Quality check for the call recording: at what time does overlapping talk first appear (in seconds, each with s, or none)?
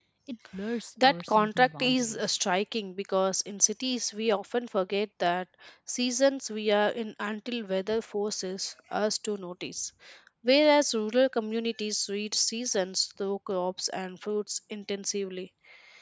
1.0 s